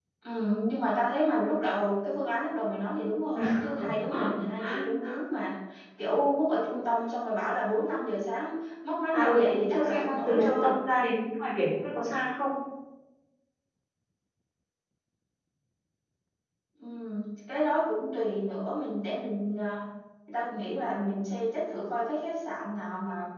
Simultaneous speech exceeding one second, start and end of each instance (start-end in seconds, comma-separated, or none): 9.1-10.8